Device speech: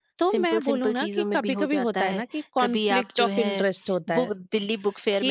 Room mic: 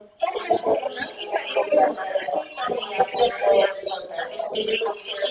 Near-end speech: none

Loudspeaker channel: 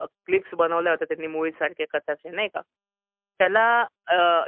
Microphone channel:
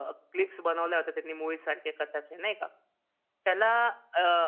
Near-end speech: none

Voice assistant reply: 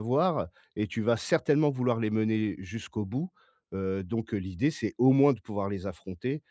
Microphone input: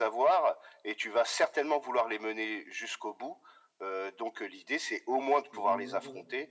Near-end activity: present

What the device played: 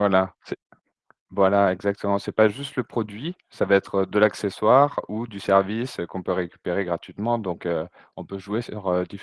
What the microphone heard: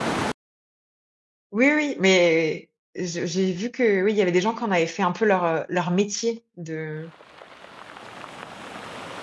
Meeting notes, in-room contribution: present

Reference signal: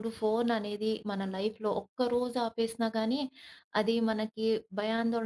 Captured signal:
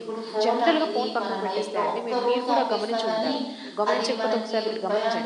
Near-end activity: present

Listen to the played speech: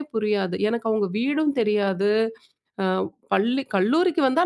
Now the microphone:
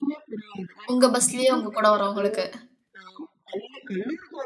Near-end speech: present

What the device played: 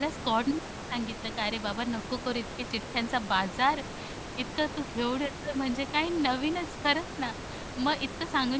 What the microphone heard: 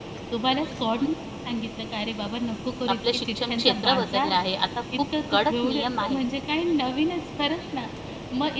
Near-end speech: present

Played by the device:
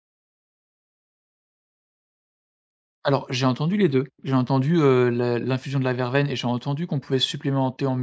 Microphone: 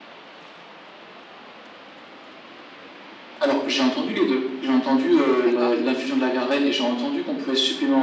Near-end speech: present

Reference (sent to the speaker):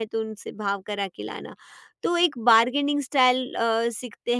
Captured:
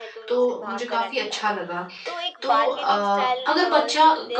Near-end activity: present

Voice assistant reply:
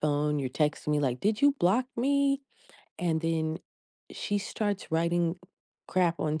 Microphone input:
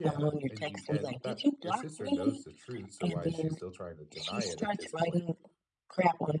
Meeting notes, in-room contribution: present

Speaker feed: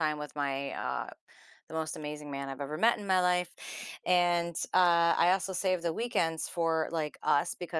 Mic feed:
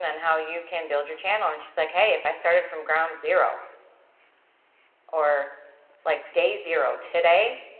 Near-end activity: present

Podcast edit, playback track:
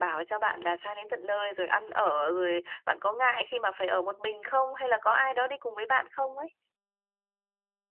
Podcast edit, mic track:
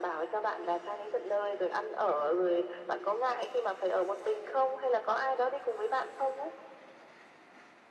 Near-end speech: none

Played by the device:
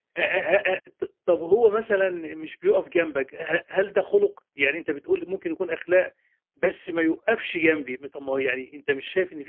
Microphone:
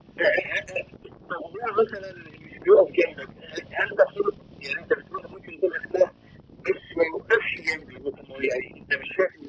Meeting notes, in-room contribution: none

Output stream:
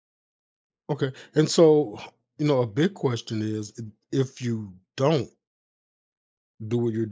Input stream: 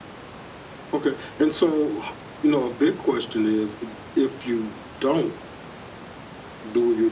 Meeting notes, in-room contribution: none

